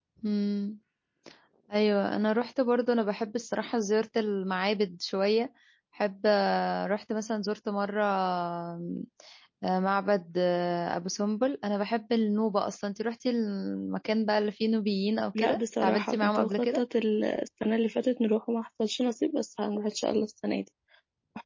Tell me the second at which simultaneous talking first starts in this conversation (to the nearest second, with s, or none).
15 s